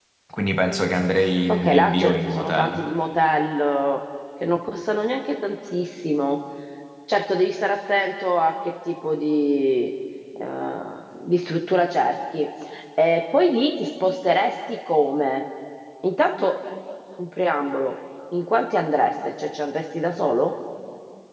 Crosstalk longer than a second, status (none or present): present